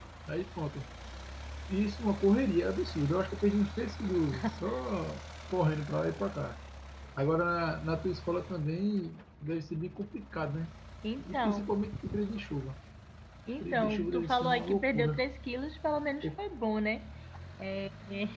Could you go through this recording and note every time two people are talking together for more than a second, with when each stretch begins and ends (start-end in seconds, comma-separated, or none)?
13.6-15.2